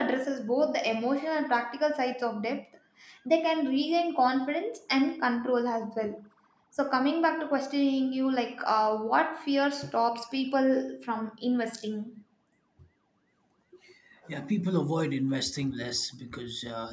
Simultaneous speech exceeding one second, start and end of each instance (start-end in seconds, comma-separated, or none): none